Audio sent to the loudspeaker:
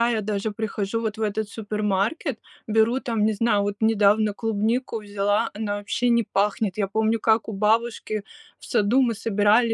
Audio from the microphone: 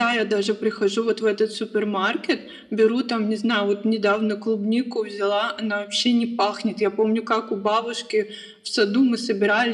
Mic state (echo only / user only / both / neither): echo only